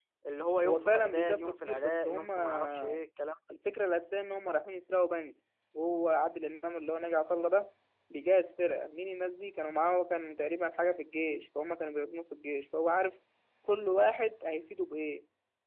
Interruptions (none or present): present